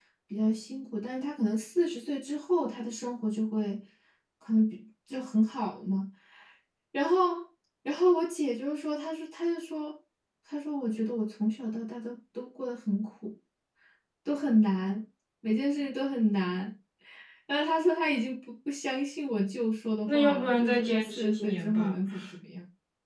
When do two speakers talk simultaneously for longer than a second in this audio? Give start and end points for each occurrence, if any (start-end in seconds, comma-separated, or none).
20.1-22.0